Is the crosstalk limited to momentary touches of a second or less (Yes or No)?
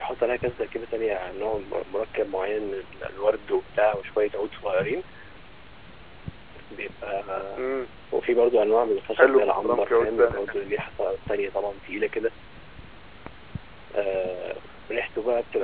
No